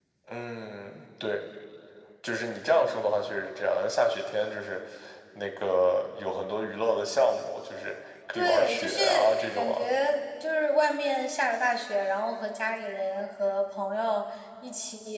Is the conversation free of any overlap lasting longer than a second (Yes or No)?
No